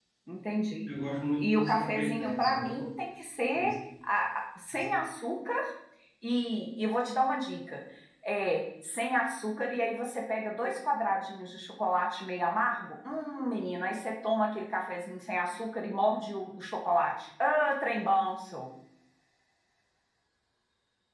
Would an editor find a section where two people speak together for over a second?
Yes, from 1.4 s

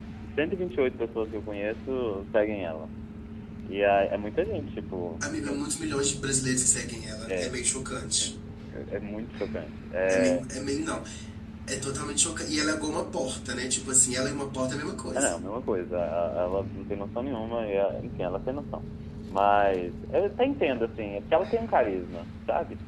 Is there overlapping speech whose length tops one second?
No

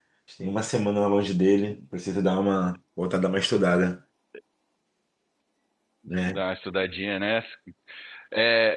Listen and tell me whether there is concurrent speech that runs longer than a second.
No

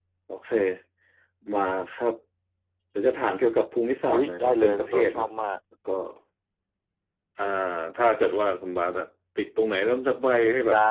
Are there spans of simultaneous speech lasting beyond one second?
Yes, from 4.1 s

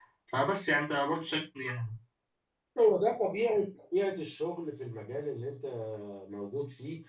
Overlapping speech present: No

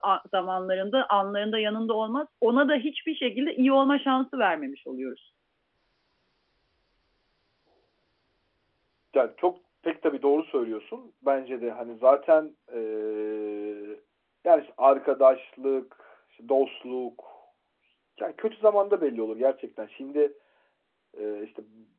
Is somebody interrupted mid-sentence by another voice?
No

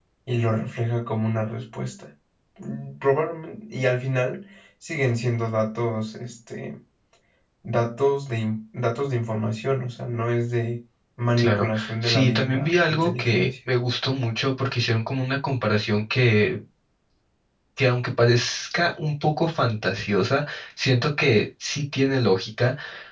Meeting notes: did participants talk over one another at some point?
Yes, from 11.4 s

